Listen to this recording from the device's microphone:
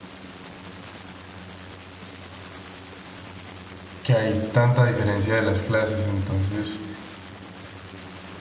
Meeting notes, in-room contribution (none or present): present